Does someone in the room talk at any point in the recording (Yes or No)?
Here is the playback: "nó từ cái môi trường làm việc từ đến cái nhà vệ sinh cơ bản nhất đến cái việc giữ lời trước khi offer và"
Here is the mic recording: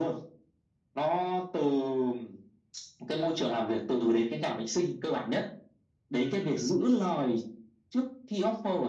No